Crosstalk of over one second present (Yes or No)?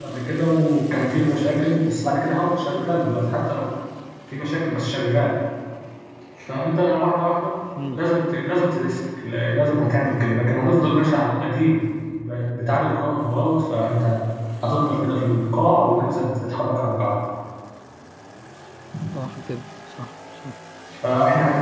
No